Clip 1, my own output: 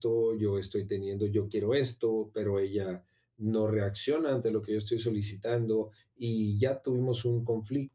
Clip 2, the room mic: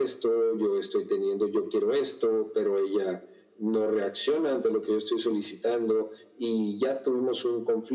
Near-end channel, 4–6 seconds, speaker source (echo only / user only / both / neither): echo only